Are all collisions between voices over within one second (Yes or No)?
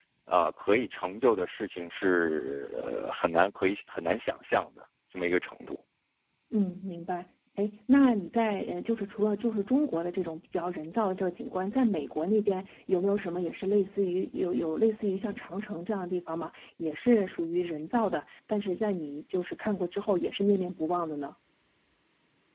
Yes